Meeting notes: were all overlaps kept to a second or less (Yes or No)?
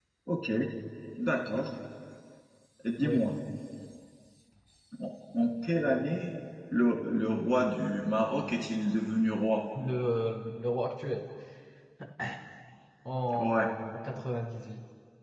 Yes